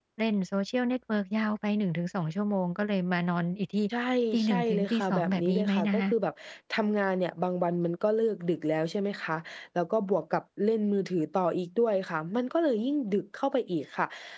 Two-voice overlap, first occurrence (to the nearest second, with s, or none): 4 s